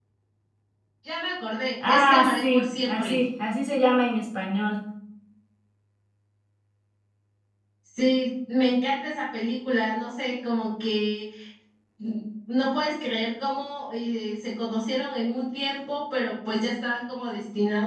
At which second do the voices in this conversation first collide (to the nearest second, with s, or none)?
2 s